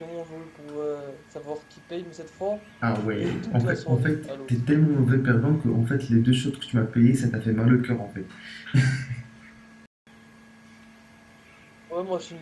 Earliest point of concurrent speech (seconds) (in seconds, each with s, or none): 2.8 s